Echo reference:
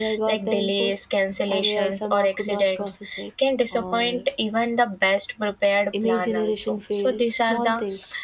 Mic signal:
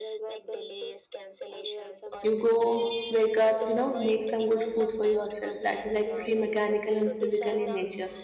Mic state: both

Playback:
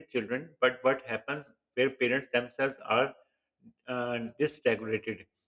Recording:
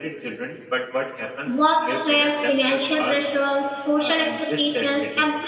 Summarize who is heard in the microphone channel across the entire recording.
both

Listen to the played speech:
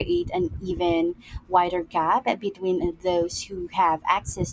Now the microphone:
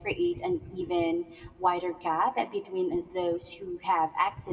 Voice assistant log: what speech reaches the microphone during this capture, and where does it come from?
echo only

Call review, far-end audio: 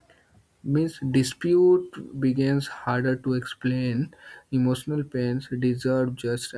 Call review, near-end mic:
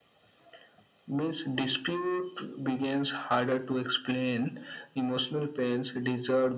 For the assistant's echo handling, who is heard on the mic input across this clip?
echo only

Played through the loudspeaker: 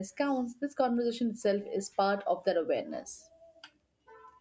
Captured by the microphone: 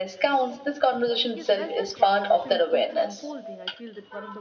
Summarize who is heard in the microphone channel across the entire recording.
both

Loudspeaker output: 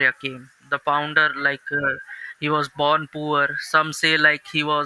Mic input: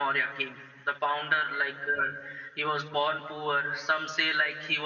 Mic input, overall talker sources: echo only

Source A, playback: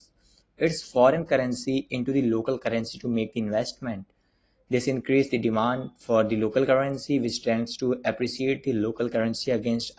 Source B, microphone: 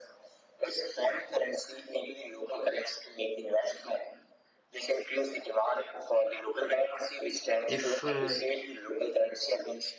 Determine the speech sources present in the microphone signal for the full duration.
both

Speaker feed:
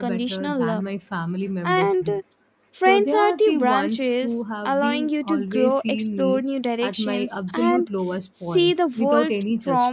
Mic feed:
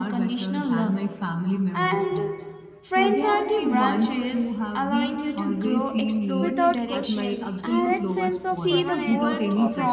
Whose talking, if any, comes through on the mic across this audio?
both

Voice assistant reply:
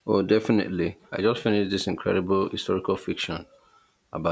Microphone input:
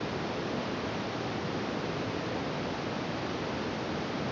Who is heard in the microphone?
neither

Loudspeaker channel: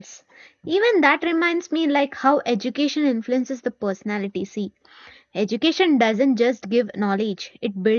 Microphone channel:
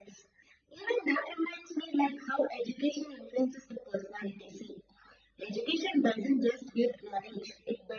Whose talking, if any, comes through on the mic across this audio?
echo only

